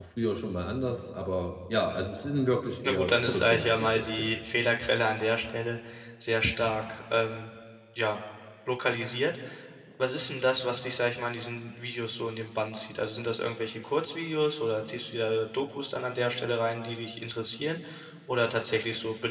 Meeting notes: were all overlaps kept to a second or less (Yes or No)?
No